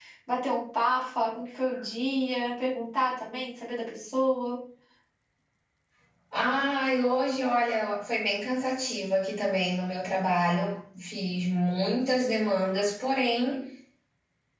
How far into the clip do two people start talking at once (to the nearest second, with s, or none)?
none